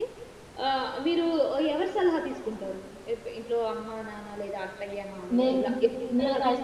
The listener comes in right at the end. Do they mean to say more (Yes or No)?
Yes